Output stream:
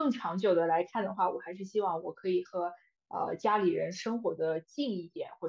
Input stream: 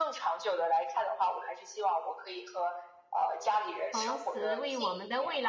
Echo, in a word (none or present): present